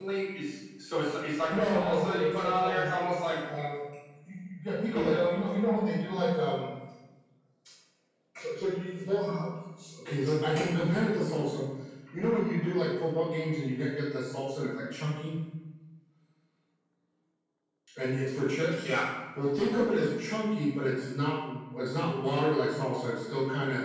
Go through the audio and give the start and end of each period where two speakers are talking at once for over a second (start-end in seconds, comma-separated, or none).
1.5-2.9